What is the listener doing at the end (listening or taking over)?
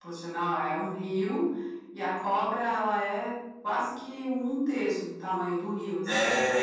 taking over